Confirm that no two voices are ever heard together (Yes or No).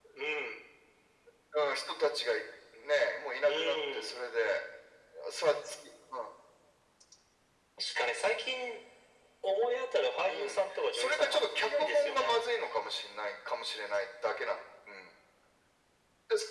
No